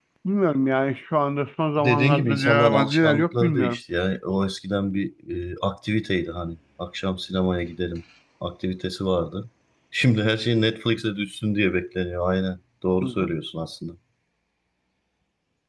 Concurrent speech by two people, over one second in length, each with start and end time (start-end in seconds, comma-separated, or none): 1.8-3.8